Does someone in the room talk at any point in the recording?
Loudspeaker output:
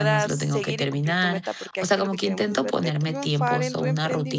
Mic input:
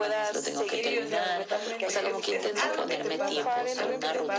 Yes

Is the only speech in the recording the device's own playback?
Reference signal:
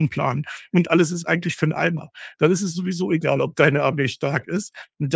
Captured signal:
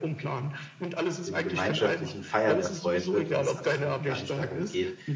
No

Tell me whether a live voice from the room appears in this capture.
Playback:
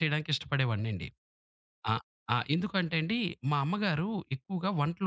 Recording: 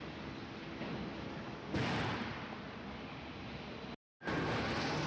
No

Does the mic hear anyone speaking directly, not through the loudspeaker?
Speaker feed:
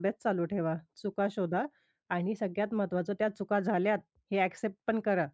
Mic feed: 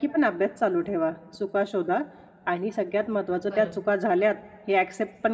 Yes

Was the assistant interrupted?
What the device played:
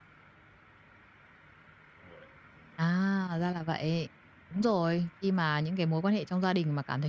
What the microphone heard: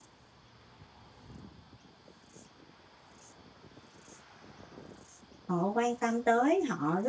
Yes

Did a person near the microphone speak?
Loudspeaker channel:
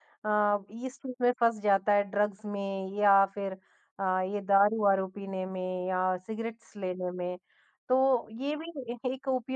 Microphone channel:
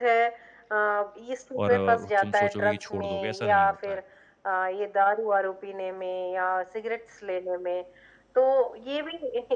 Yes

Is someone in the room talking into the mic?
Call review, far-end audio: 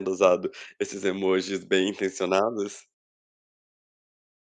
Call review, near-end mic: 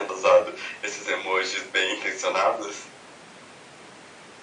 No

